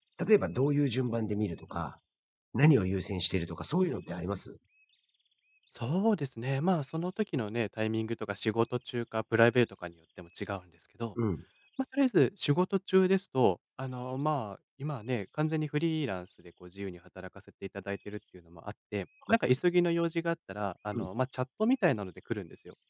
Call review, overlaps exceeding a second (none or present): none